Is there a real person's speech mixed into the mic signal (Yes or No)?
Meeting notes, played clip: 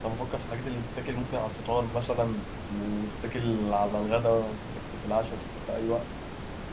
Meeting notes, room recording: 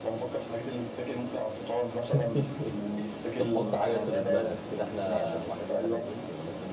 Yes